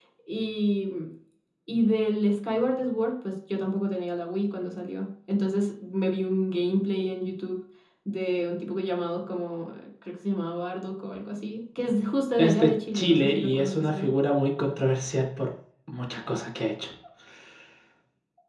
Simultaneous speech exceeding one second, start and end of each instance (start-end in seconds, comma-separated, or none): 12.4-14.1